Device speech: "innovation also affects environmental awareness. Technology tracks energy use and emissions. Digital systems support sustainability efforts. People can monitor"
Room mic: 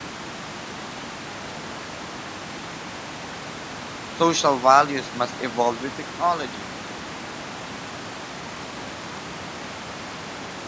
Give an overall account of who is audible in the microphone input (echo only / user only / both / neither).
user only